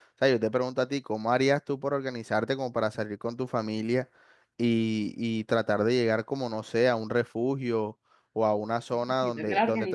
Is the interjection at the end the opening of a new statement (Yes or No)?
Yes